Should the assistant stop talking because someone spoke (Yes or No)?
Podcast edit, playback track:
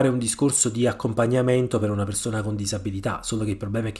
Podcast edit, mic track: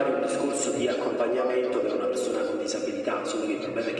Yes